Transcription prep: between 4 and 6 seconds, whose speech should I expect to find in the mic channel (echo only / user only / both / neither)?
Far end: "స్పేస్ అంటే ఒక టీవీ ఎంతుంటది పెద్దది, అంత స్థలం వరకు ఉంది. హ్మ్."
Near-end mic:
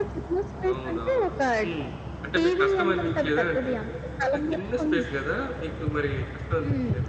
both